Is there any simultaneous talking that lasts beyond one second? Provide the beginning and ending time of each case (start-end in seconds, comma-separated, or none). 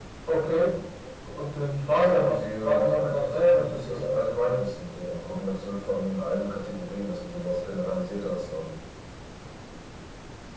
2.0-4.2